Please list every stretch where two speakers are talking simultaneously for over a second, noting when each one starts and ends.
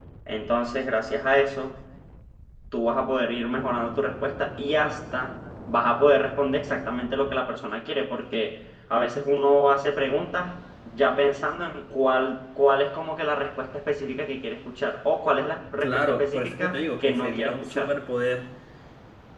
15.8-17.9

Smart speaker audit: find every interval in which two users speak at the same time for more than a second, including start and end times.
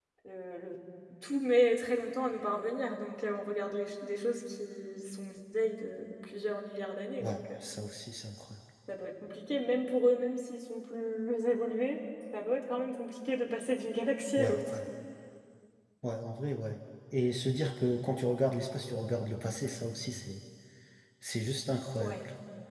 none

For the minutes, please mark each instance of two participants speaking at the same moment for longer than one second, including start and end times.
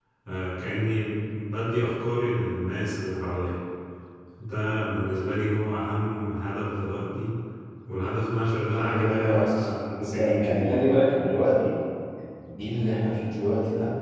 8.7-10.8

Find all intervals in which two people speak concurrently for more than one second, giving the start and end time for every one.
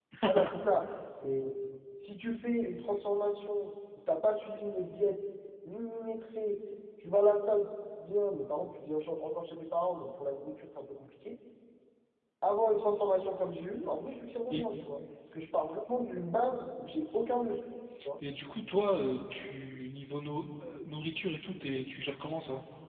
none

